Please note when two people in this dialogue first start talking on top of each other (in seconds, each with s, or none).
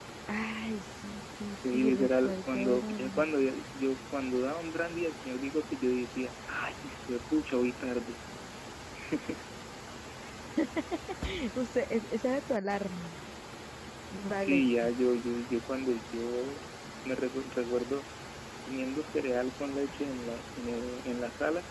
1.7 s